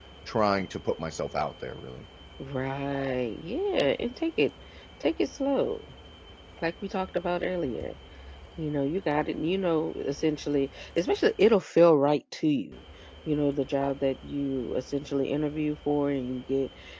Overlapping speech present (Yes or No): No